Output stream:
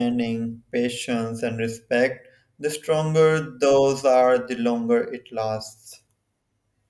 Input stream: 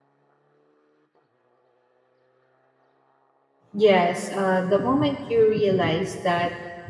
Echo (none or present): none